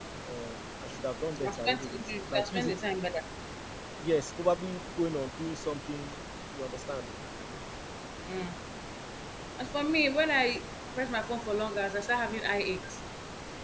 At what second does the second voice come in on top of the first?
1.4 s

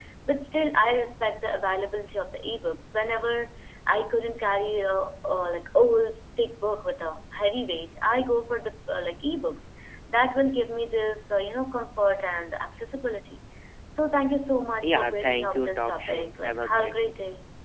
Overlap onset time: 14.8 s

